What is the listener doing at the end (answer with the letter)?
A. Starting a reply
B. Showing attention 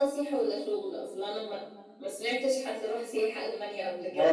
A